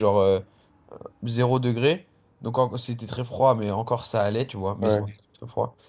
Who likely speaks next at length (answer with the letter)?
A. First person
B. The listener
A